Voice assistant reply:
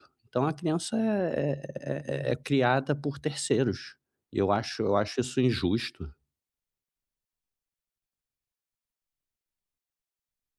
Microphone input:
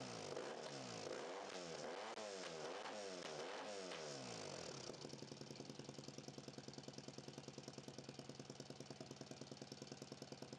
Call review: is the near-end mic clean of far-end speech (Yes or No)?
Yes